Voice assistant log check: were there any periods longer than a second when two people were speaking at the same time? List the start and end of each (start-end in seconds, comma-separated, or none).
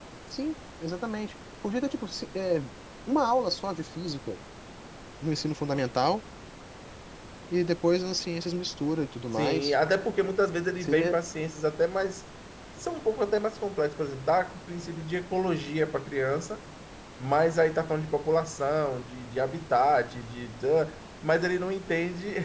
none